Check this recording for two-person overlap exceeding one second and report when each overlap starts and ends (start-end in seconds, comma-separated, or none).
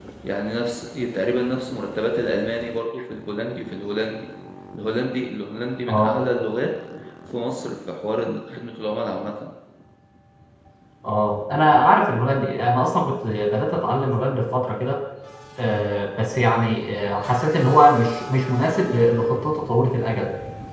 none